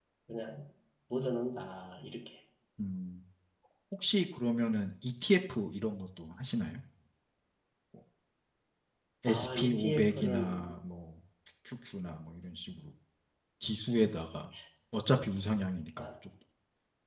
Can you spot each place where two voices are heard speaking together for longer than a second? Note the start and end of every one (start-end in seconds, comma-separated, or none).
9.2-10.7